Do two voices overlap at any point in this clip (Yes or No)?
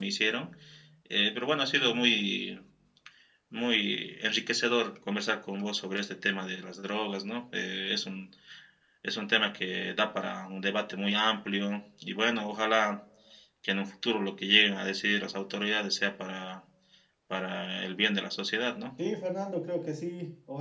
No